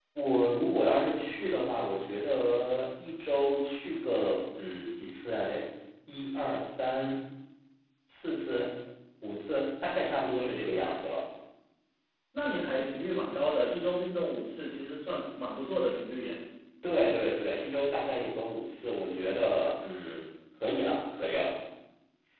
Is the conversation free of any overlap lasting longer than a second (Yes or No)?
Yes